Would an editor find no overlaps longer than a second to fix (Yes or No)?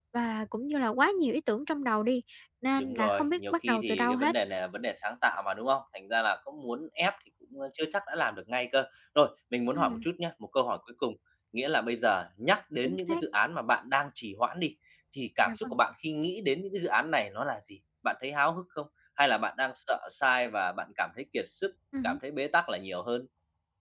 No